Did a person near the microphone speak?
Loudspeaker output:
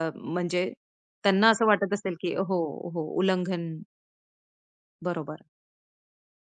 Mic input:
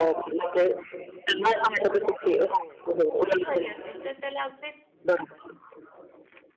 Yes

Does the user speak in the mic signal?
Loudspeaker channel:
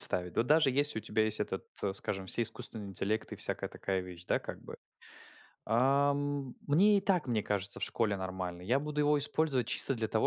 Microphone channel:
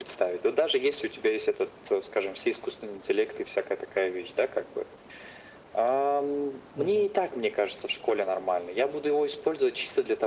Yes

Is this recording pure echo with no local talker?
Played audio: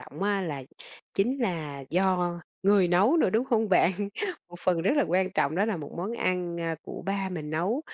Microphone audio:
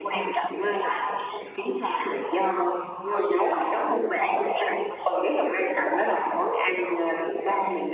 Yes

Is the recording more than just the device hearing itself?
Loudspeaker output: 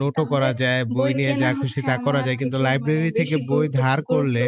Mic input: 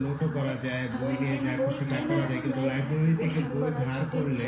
Yes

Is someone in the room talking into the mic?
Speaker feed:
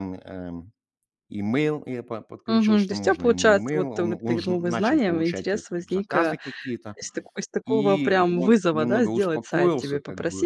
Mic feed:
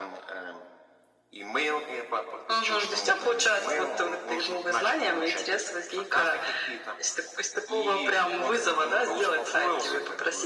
No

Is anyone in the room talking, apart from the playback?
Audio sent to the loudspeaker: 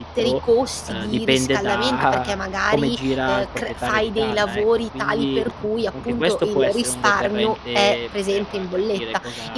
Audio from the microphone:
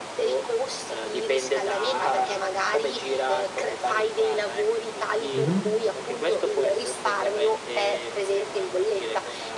Yes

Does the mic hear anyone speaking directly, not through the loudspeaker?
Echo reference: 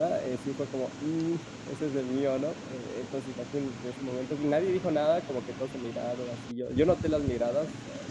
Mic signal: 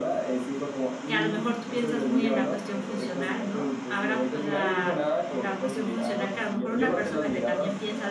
Yes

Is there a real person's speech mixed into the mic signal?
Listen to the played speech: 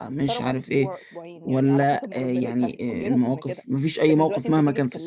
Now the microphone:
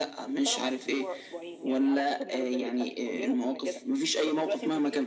No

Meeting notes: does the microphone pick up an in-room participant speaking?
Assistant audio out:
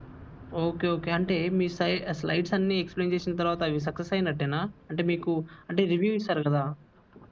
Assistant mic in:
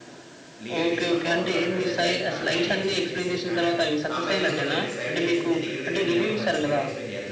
Yes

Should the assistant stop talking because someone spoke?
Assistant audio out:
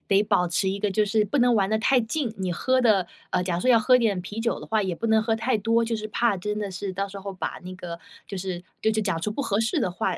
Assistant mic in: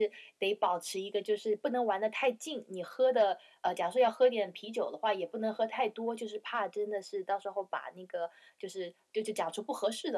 No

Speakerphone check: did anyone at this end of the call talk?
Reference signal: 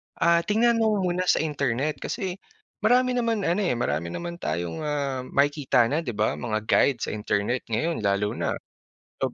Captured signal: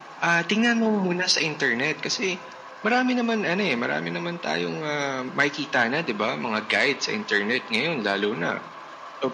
No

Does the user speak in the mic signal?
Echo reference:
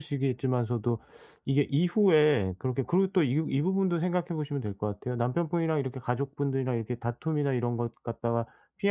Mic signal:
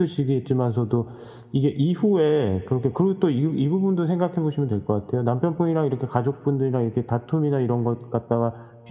No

